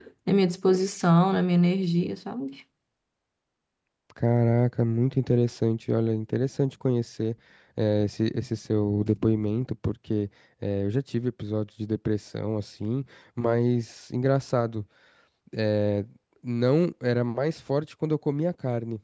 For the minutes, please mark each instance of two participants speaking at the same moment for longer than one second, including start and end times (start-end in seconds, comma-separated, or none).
none